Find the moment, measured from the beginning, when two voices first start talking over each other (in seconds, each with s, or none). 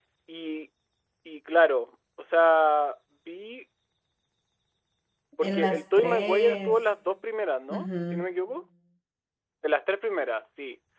5.4 s